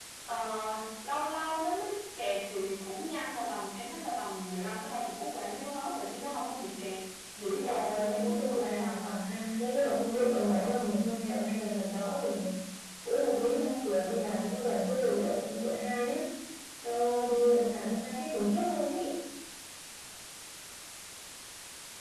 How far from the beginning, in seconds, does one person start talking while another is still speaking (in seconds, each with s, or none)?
7.6 s